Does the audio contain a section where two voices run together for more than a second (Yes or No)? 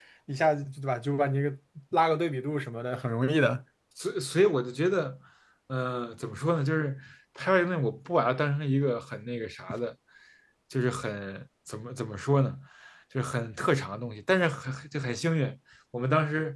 No